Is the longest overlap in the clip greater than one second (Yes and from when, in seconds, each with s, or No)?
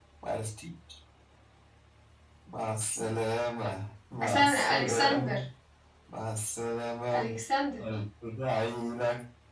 Yes, from 4.2 s